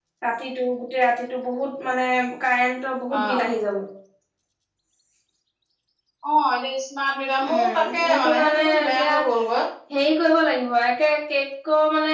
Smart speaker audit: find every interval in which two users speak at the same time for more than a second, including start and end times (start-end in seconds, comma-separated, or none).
7.5-9.1